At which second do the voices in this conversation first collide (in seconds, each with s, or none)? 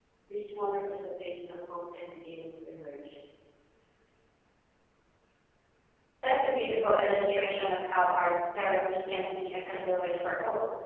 none